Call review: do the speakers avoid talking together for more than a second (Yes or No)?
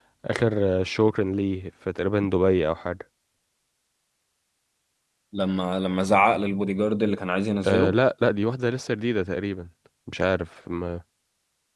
Yes